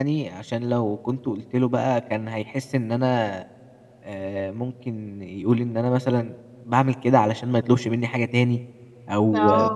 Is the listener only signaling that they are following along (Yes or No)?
Yes